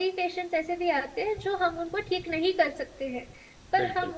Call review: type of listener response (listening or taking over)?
listening